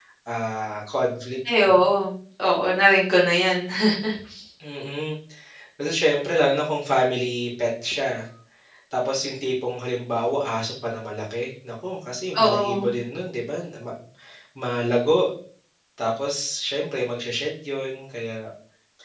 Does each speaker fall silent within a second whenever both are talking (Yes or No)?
Yes